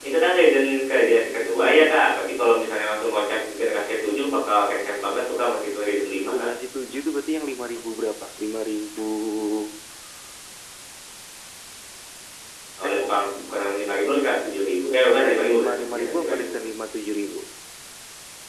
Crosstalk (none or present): present